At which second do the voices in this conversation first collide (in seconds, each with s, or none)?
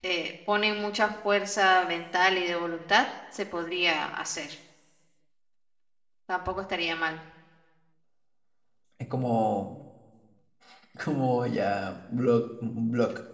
none